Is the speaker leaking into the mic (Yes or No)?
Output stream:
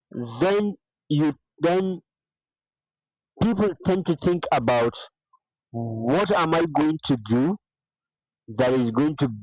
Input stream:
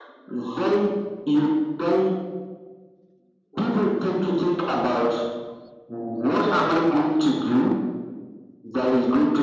Yes